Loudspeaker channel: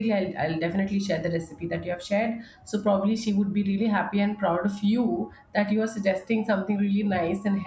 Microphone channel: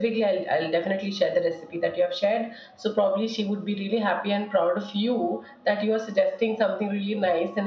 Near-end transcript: none

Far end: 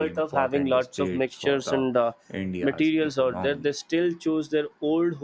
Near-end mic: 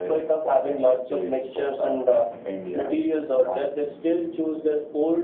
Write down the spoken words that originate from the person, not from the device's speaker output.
none

